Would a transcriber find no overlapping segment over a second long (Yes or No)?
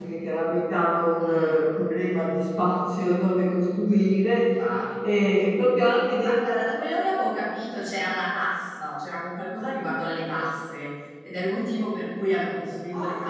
Yes